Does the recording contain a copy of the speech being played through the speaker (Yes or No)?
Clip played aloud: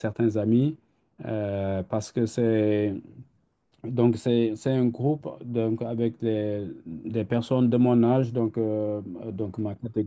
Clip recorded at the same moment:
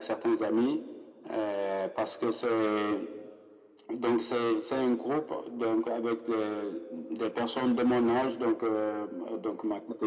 Yes